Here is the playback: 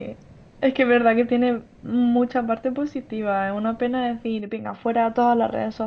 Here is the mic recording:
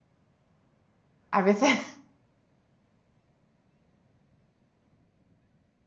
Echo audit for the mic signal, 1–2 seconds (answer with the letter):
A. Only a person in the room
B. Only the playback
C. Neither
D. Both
A